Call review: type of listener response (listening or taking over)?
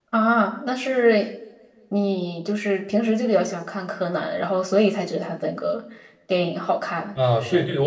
taking over